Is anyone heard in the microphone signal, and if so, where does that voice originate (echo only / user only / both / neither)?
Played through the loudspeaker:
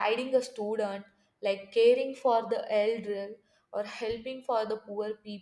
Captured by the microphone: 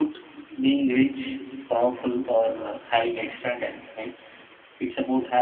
user only